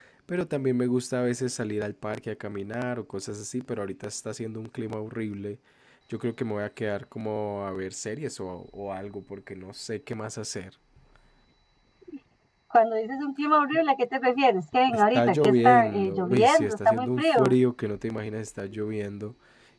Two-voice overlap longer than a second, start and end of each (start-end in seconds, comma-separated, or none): 14.9-17.5